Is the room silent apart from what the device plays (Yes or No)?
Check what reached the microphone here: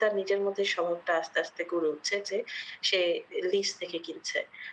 Yes